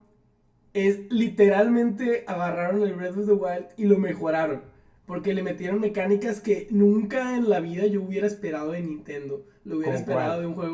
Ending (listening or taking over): listening